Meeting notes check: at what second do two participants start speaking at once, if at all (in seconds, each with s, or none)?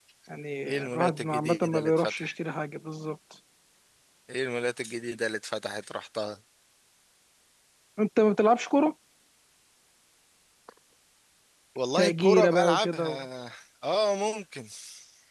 0.7 s